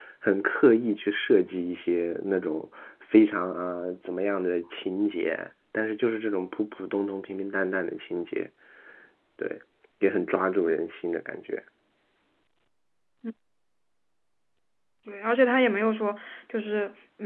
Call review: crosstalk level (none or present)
none